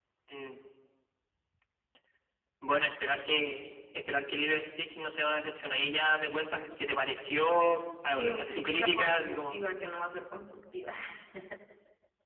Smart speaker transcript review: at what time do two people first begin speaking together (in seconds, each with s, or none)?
8.1 s